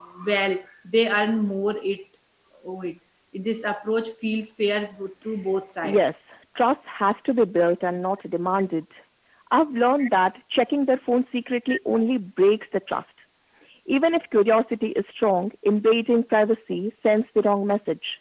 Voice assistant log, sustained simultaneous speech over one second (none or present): none